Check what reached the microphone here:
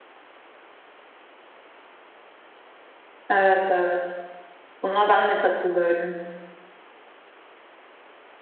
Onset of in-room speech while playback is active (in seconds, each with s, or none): 3.3 s